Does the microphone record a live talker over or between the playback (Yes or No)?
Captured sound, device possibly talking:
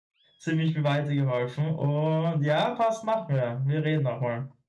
Yes